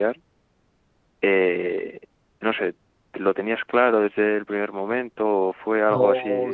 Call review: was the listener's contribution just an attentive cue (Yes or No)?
No